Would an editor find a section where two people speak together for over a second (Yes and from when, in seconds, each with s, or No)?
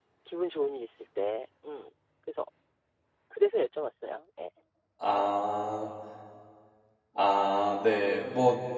No